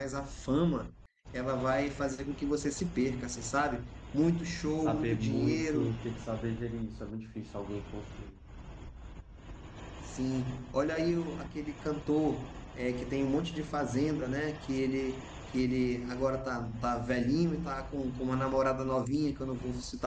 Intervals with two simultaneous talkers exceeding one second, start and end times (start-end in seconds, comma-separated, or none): 4.4-5.9